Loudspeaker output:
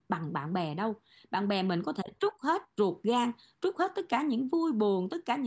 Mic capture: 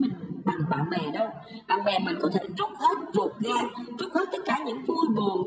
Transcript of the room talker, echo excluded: none

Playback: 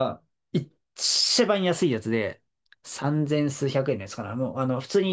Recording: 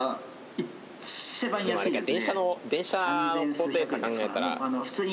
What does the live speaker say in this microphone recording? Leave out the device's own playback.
でもあれか、電車の、電車の高低差考えたら、

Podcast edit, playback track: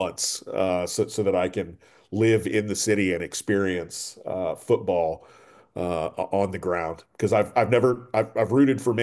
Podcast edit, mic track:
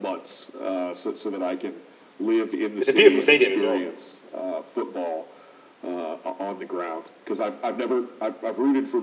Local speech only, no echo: it's a beautiful stadium as well.

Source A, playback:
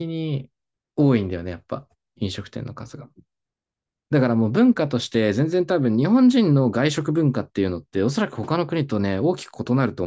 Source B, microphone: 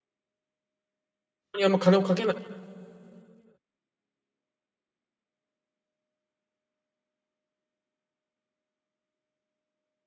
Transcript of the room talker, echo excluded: にあんま金をかけない。

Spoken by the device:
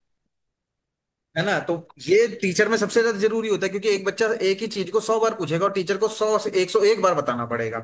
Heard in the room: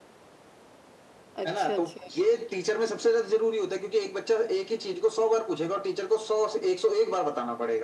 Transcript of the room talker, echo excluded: अच्छा अच्छा

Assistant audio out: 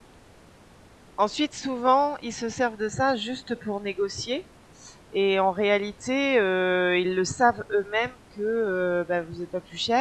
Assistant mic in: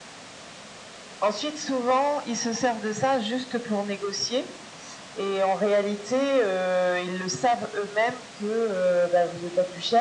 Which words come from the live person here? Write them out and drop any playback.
none

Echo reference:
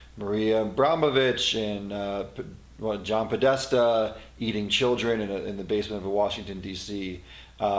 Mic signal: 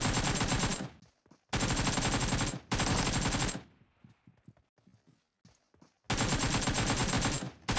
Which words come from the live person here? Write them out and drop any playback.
none

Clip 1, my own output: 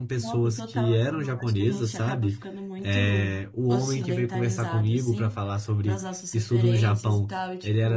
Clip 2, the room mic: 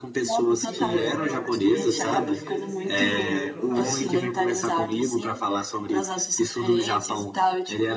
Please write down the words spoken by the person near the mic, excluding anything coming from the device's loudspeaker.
Pois é, é porque o japonês assim, até porque é outro alfabeto, né?

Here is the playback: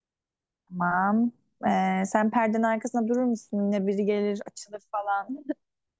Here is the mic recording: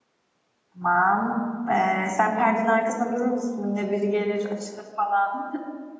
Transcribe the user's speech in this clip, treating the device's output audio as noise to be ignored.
none

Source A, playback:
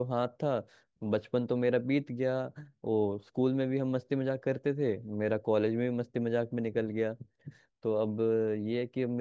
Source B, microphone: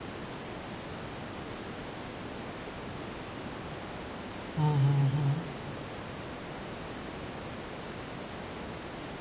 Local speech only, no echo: हम्म हम्म हम्म

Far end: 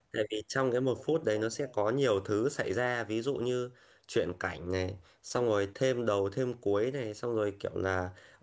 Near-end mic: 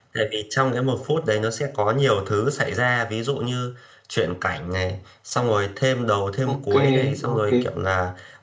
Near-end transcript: ok ok

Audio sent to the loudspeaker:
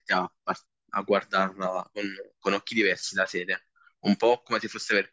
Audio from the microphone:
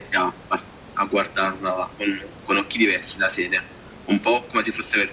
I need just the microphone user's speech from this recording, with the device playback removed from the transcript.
none

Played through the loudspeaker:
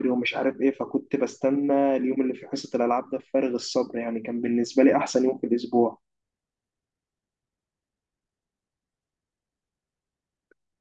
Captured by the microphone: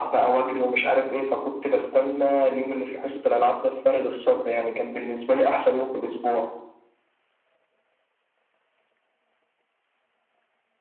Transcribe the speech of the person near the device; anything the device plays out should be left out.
none

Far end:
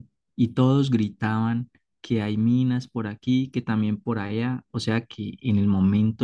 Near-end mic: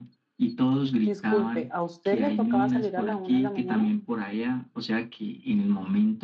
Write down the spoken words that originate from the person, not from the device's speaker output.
Disculpe, ¿a usted le tocaba salir a la una de la mañana?

